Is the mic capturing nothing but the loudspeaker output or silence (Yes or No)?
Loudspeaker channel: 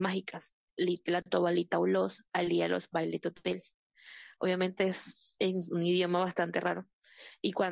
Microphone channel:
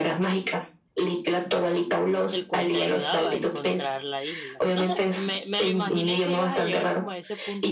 No